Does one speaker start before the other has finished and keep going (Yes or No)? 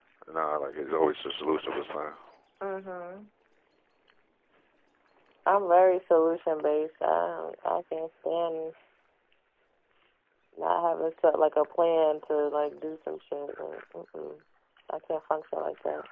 No